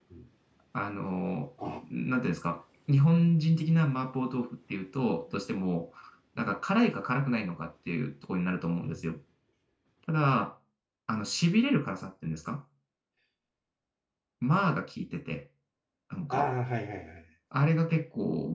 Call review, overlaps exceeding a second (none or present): none